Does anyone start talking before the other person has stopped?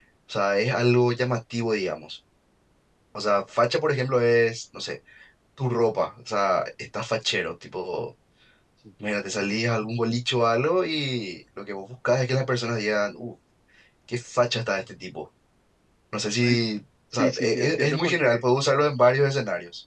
Yes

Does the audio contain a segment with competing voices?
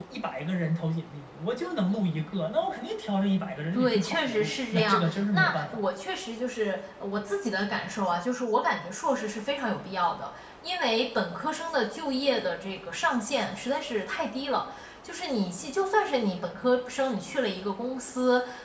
Yes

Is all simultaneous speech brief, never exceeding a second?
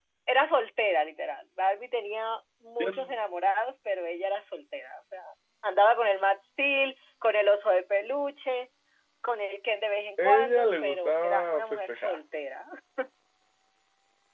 No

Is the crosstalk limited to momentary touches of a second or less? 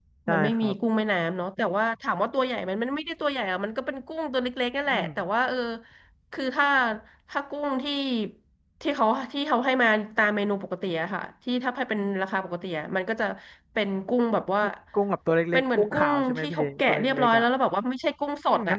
No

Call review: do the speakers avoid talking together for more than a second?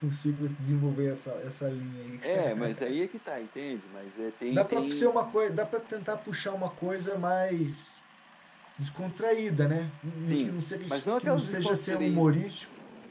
No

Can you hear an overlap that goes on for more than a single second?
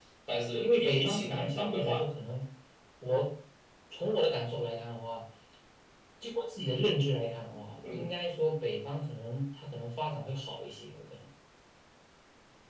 Yes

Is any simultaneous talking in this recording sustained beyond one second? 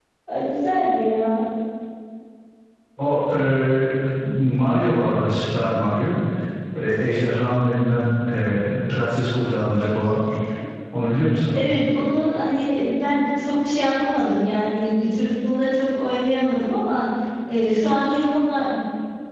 No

